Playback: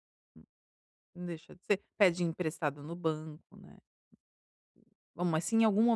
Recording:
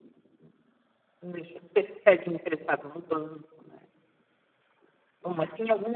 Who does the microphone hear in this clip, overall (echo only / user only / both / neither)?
echo only